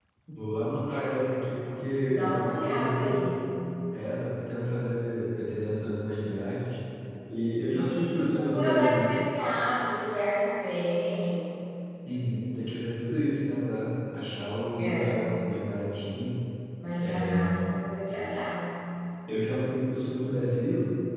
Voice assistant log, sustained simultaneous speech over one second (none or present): present